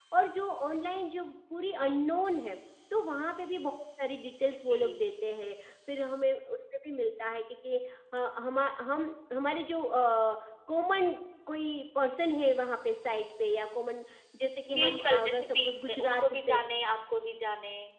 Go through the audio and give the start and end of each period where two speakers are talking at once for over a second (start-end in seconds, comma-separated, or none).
14.7-16.6